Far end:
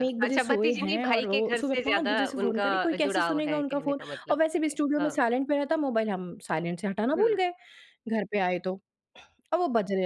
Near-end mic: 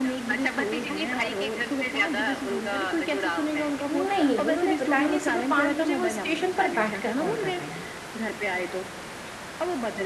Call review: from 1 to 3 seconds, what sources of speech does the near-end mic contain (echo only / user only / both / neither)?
echo only